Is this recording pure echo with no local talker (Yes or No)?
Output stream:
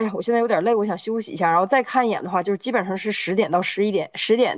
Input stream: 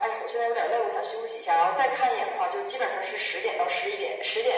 Yes